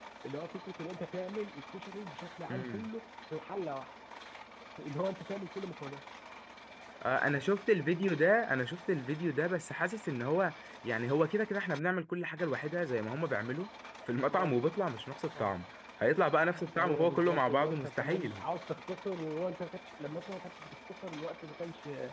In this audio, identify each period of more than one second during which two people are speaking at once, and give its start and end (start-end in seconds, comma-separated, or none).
16.8-18.4